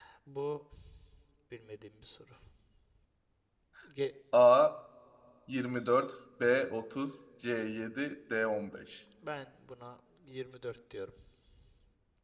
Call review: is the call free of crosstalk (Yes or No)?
Yes